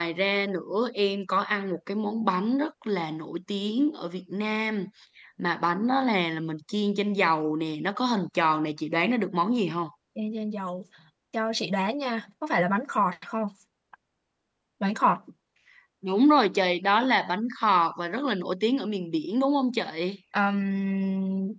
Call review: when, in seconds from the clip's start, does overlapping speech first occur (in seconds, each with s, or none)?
none